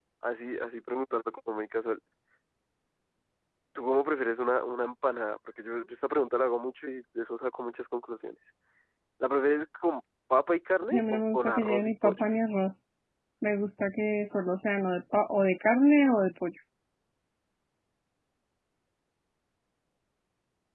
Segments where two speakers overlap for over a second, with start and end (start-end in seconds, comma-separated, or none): 10.9-12.2